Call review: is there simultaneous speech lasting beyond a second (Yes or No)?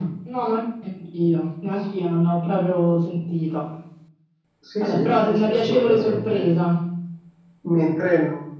Yes